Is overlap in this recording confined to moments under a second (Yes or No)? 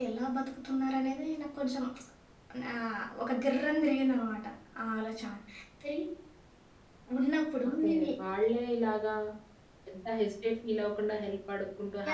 Yes